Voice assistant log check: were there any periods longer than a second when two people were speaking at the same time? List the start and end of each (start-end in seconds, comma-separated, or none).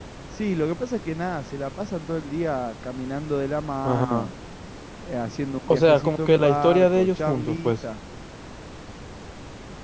5.7-7.7